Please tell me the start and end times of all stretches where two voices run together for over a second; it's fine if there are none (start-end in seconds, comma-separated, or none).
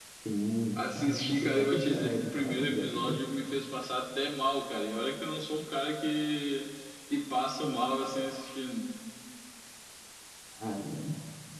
0.7-3.2